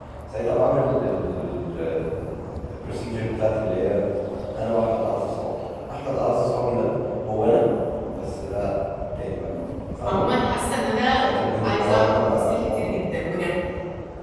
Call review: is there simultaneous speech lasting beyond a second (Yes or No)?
Yes